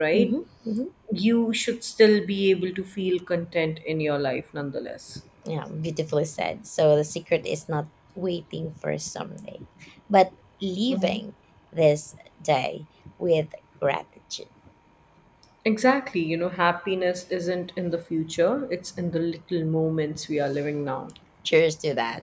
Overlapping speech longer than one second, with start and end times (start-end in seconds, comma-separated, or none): none